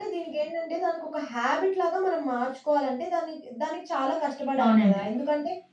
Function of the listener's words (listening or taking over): listening